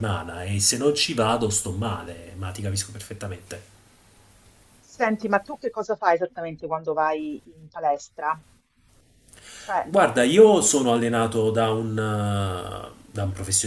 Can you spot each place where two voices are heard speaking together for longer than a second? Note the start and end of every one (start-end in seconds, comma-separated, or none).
none